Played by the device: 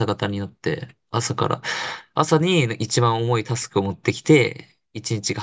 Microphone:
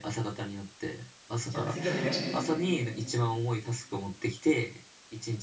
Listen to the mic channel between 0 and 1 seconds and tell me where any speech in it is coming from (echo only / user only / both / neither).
echo only